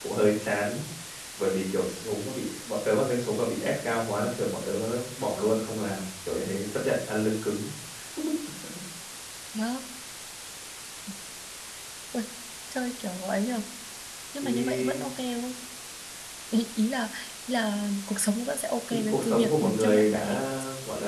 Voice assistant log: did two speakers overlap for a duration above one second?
Yes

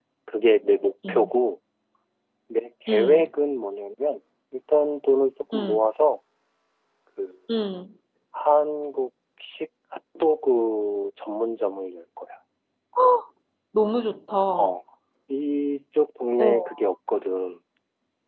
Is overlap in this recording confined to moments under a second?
Yes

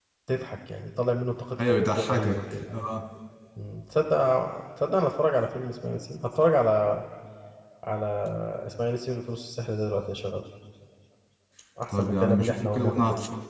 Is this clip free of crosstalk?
No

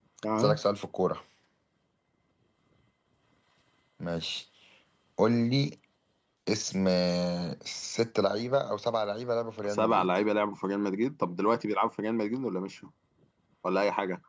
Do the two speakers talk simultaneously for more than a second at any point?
No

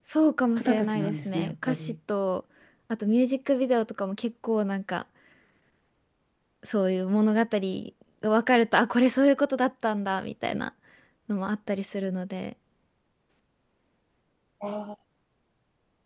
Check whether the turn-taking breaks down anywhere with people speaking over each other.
Yes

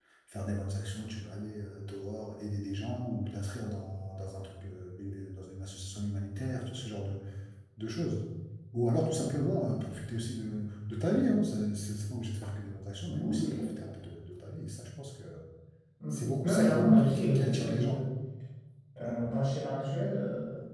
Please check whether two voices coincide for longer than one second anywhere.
Yes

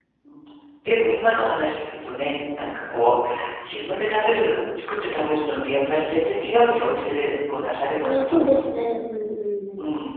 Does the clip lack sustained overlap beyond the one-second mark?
Yes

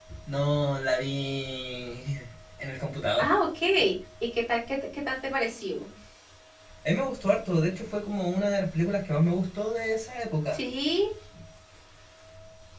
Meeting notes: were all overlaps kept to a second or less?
Yes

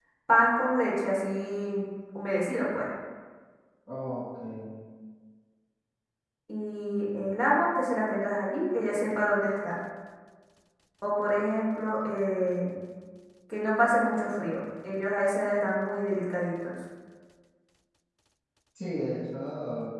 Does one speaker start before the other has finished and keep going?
No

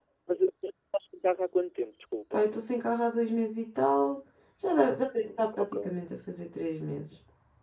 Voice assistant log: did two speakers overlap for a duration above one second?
No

